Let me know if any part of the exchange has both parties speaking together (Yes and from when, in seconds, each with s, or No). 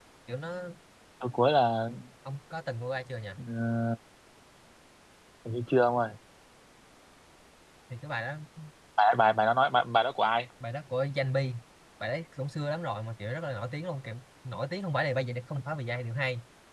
No